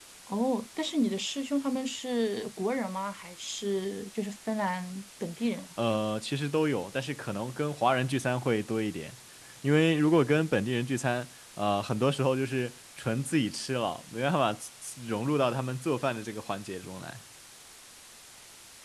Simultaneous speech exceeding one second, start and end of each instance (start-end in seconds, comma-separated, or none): none